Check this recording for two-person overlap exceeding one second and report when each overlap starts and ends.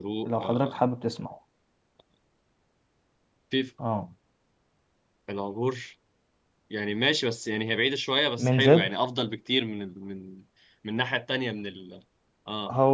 none

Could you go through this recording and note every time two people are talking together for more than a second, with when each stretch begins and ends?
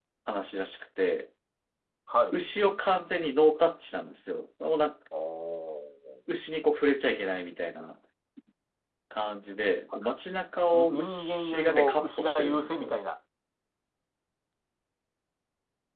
10.7-13.0

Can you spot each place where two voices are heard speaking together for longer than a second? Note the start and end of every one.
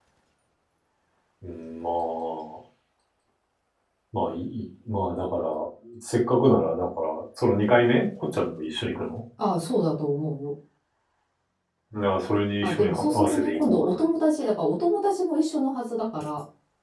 12.6-13.9

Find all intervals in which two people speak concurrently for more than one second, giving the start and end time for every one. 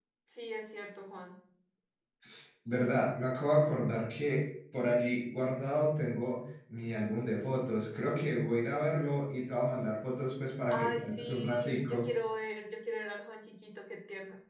10.7-12.1

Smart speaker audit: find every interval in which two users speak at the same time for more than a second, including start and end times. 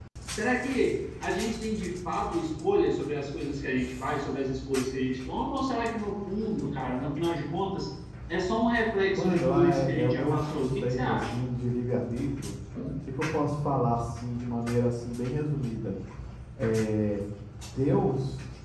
9.1-11.4

